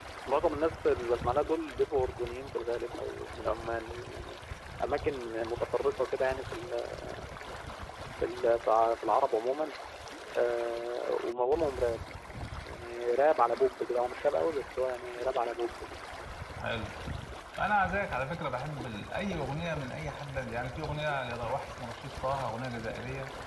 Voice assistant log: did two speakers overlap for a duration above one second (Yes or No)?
No